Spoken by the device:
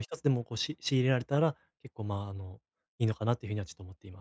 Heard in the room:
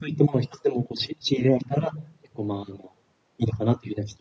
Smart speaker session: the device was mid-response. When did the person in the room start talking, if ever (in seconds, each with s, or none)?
none